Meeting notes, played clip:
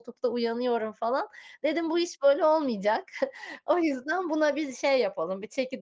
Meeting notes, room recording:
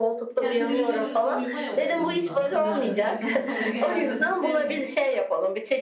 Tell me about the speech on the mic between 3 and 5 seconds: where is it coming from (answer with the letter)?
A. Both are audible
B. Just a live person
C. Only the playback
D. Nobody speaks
A